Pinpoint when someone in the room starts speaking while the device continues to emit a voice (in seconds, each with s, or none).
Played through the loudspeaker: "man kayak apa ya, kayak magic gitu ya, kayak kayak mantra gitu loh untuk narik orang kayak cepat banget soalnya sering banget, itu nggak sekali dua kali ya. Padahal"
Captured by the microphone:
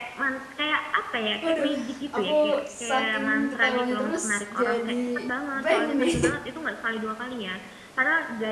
1.4 s